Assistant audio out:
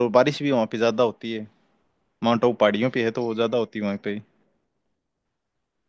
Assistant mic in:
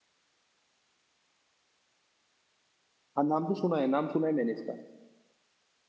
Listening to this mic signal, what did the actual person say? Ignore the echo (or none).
हाँ नाम तो सुना है नाम सुना है मैंने इसका